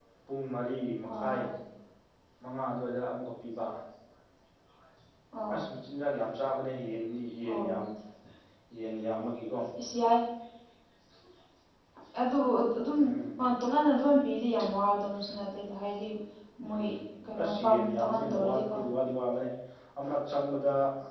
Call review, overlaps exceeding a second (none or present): present